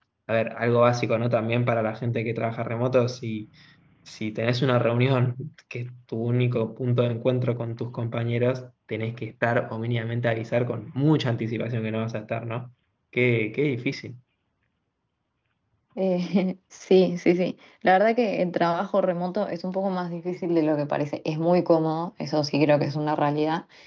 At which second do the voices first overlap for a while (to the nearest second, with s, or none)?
none